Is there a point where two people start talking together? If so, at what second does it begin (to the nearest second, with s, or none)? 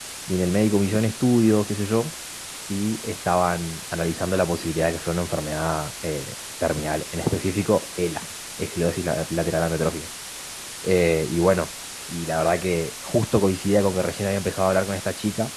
none